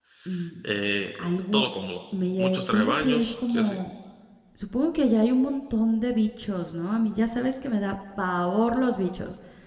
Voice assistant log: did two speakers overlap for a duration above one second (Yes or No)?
Yes